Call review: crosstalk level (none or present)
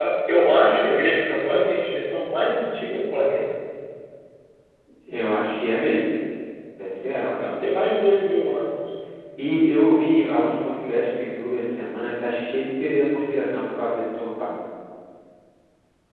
none